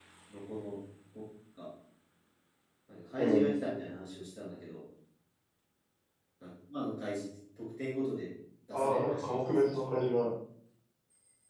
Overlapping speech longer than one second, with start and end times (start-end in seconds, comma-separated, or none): 8.7-10.0